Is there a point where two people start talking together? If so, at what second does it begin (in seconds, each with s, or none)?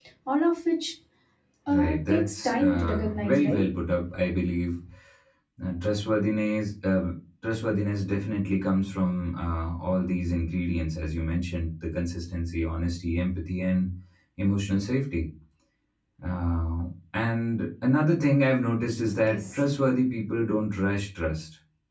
1.7 s